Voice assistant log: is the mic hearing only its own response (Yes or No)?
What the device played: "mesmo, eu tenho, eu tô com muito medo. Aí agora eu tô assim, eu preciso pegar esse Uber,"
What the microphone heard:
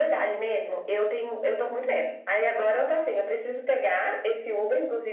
Yes